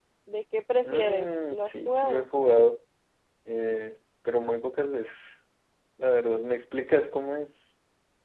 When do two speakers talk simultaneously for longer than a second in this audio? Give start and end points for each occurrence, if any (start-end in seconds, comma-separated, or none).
0.8-2.3